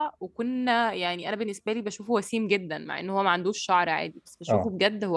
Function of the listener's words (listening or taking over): listening